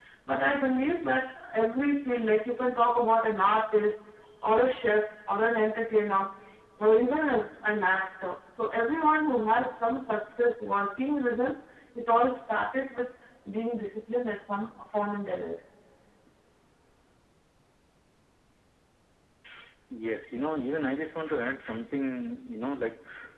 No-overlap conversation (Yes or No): Yes